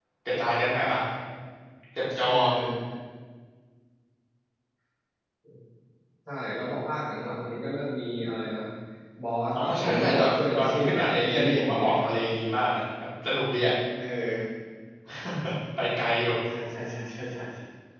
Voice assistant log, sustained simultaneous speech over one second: present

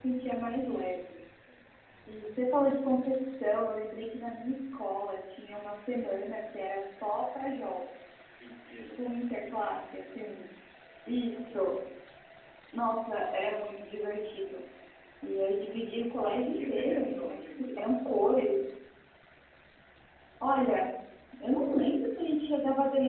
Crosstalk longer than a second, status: present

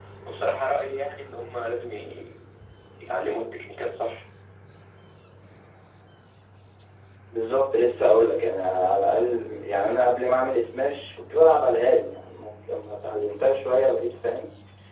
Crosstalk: none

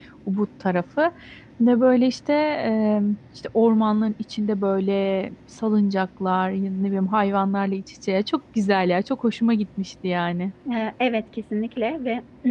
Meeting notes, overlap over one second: none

